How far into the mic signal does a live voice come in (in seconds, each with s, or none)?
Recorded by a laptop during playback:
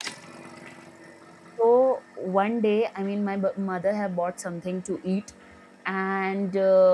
1.6 s